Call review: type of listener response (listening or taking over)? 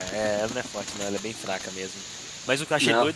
listening